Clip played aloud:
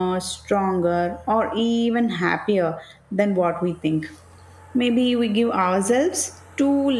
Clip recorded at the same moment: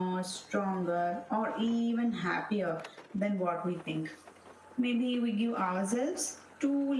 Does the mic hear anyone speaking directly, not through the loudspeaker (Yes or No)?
No